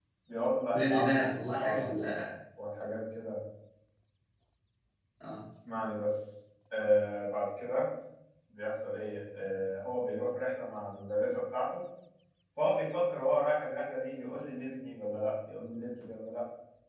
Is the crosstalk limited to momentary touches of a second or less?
No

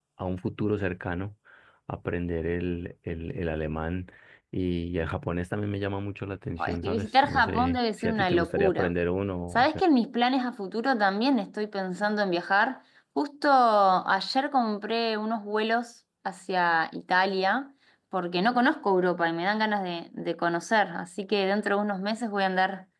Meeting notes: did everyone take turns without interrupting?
No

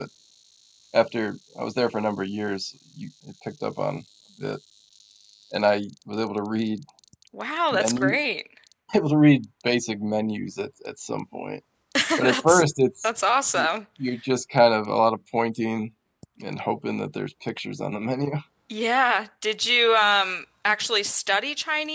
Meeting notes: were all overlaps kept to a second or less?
Yes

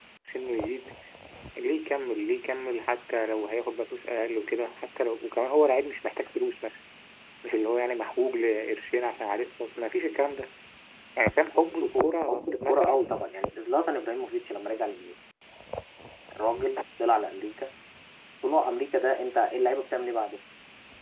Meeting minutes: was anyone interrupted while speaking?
Yes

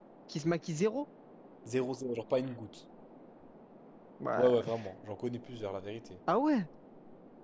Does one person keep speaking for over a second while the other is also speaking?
No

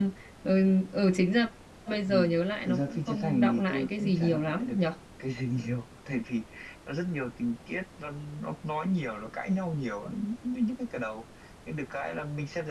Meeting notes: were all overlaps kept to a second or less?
No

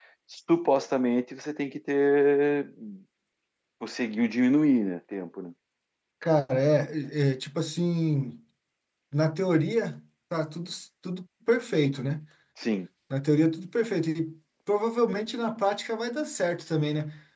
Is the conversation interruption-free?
Yes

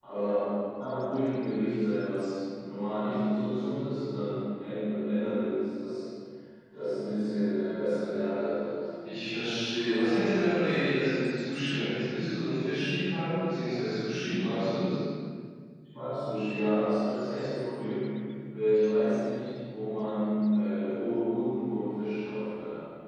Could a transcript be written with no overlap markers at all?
Yes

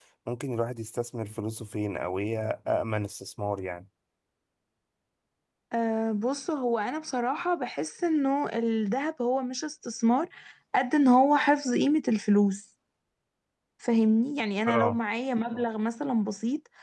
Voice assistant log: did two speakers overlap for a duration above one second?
No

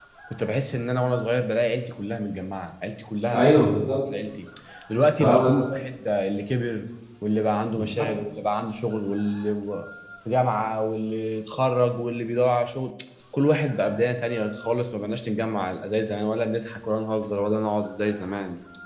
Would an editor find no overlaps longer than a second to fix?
Yes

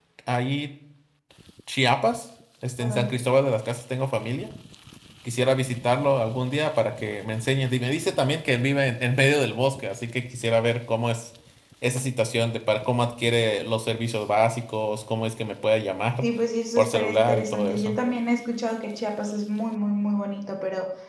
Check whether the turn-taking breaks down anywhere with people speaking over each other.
Yes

